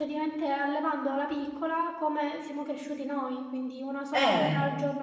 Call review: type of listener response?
listening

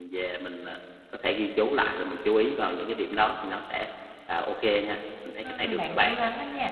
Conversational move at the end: taking over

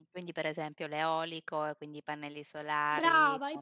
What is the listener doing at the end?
taking over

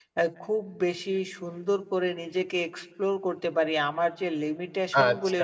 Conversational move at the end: listening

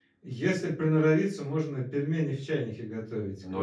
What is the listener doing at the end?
taking over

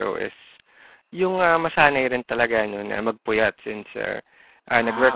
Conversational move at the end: listening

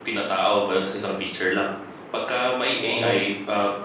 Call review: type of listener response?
listening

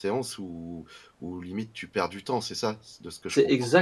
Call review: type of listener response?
taking over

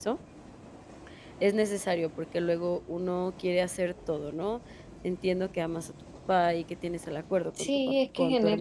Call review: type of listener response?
taking over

